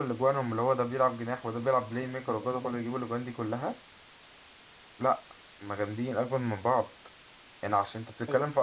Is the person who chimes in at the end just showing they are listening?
Yes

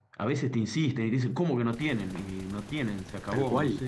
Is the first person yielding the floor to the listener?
No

